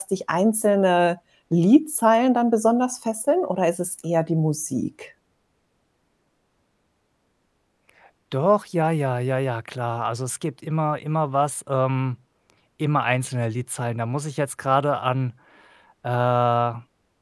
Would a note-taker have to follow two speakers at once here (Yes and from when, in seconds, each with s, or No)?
No